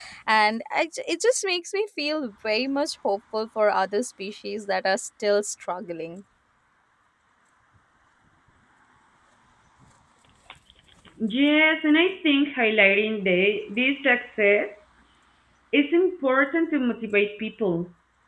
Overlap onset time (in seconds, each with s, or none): none